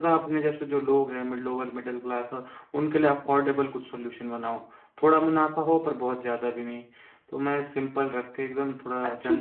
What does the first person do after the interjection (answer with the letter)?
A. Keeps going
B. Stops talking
B